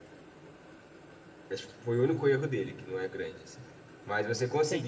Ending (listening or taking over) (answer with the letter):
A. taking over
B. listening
B